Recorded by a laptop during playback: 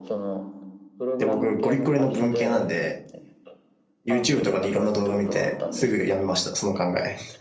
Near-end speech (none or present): present